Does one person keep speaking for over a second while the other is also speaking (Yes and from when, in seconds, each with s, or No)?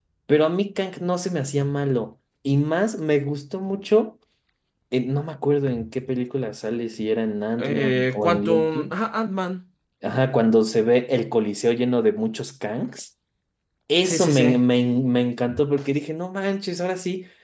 Yes, from 7.6 s